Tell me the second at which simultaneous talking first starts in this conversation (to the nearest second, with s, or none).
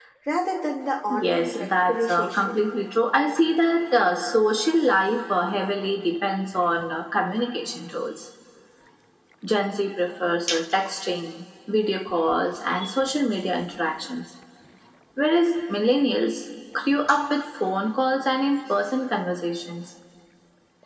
1 s